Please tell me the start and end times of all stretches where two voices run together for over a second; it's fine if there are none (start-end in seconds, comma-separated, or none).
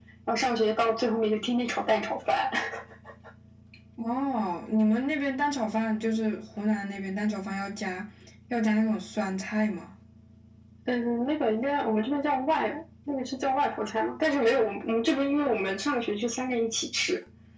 none